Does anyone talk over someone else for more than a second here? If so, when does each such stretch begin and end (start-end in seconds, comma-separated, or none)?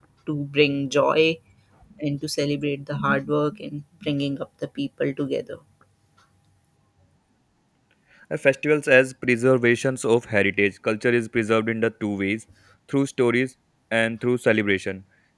none